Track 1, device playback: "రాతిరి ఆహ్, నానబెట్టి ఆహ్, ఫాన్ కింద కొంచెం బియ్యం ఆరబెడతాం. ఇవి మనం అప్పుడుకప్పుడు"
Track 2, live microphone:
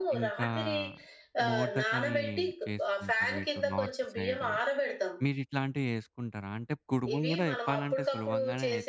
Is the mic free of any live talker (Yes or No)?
No